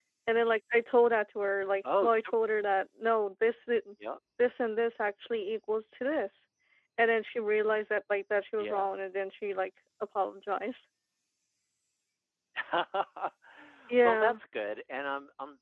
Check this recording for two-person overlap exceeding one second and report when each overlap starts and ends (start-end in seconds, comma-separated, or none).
none